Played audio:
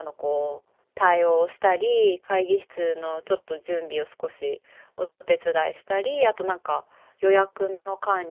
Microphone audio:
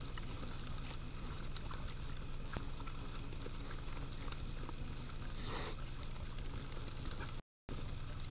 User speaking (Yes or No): No